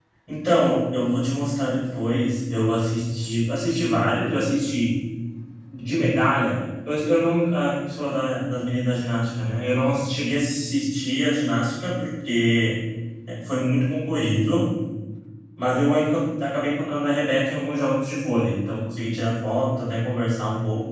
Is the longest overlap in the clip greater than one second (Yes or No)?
No